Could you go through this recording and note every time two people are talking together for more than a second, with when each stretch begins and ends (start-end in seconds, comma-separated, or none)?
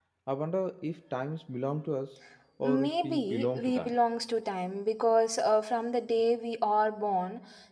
2.6-4.0